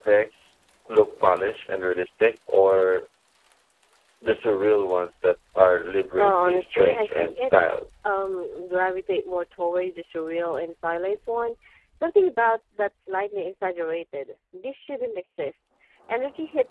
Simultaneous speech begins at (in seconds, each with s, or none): 6.2 s